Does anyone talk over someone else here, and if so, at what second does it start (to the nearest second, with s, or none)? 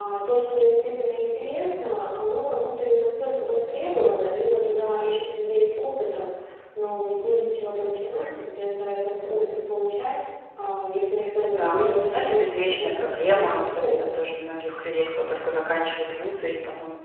12 s